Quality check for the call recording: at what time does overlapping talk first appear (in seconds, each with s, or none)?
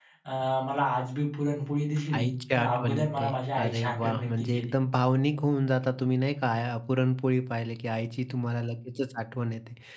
2.1 s